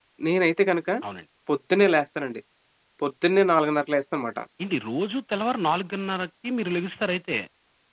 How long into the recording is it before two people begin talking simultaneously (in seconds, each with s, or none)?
none